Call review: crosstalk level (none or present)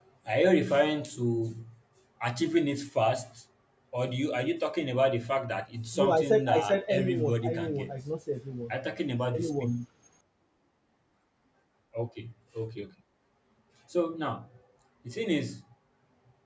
present